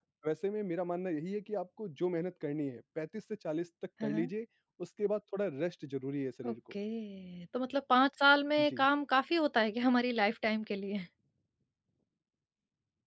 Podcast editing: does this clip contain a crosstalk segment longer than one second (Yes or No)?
No